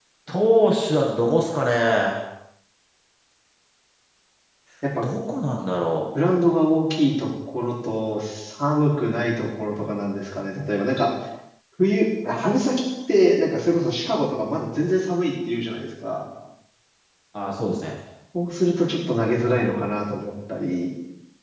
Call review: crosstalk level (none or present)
none